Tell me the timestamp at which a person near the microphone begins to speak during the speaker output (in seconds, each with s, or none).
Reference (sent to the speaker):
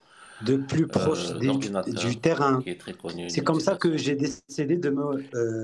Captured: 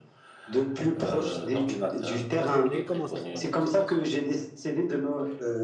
2.3 s